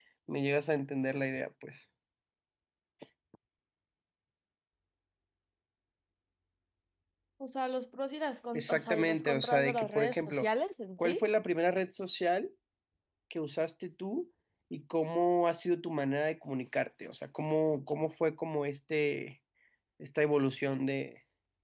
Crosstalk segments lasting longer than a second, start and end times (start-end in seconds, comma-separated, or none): 8.5-10.4